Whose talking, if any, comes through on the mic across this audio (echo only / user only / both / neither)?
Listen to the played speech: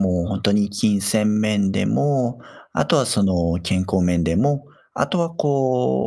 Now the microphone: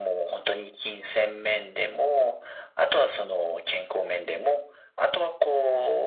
echo only